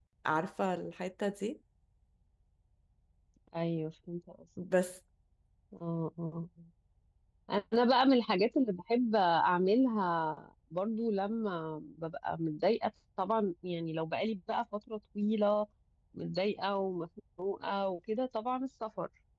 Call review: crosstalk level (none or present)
none